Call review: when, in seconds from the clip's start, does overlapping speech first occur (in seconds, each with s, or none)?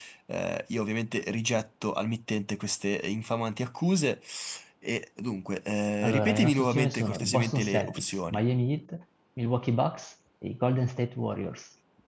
6.0 s